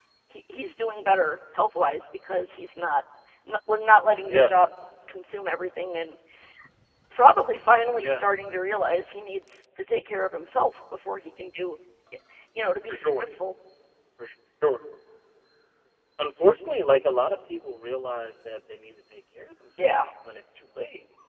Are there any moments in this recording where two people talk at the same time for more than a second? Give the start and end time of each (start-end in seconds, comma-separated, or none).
none